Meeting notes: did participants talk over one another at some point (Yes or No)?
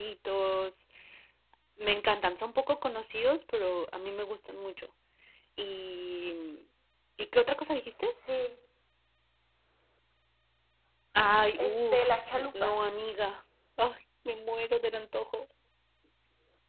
Yes